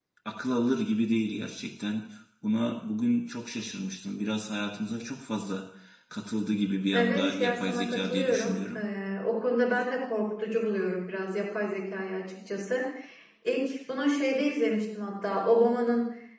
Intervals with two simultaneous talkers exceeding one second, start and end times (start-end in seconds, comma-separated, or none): 6.9-8.8